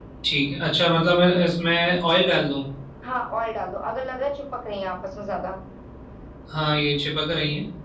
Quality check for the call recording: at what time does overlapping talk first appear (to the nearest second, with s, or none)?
none